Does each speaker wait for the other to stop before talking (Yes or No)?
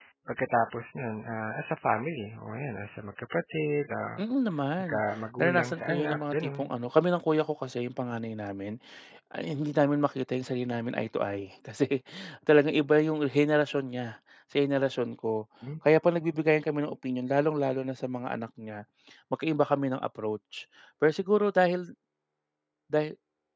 No